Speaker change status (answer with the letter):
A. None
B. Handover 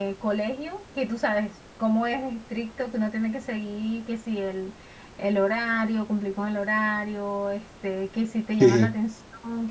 A